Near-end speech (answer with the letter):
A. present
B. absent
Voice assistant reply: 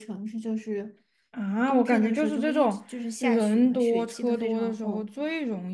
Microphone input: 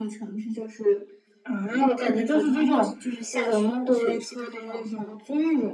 B